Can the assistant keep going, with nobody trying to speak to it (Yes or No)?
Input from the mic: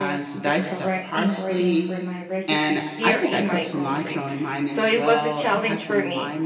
No